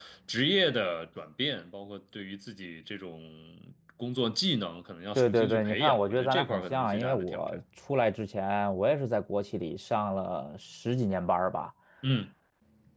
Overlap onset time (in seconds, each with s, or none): 5.2 s